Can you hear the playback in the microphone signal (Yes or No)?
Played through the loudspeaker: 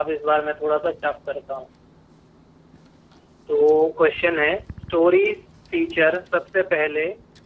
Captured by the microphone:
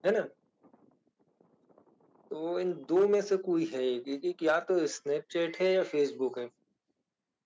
No